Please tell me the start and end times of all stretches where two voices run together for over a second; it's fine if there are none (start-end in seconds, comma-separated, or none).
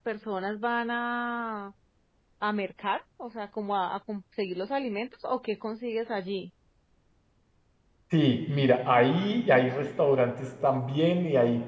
none